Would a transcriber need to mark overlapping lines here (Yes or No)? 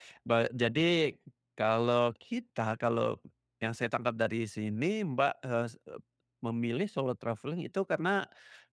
No